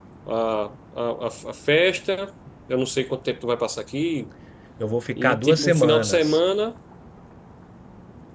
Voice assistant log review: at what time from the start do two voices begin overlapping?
5.2 s

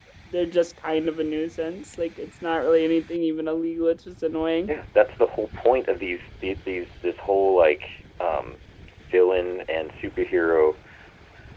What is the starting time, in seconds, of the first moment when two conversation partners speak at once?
none

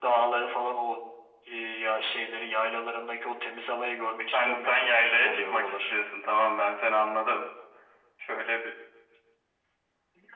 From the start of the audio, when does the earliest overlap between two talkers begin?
4.3 s

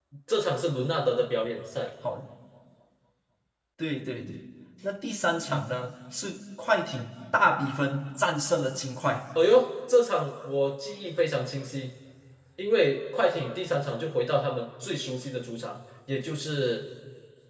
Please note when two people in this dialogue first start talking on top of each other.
none

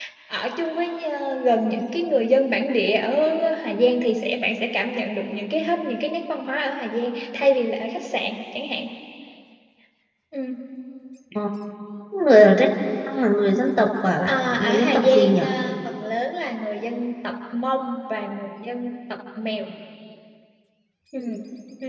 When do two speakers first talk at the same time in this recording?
14.3 s

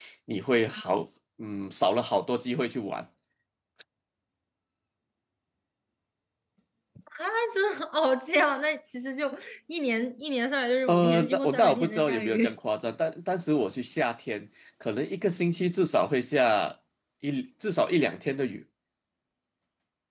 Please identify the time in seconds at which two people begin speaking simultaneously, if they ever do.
10.9 s

